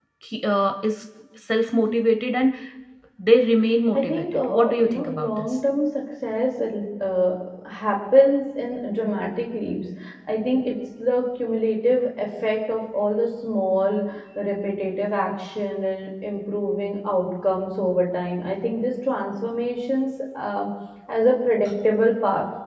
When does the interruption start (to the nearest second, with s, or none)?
4 s